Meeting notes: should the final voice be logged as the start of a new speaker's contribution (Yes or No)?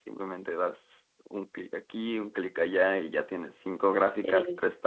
No